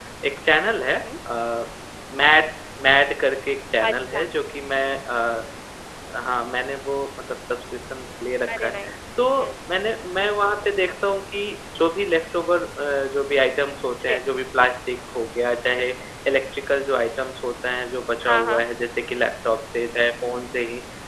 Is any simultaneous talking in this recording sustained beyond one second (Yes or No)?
No